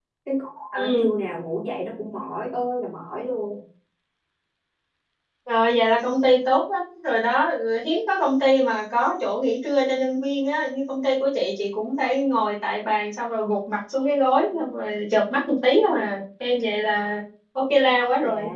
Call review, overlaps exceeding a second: none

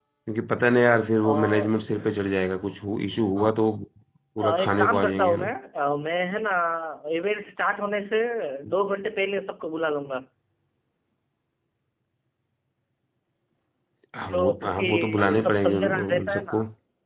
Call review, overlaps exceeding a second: present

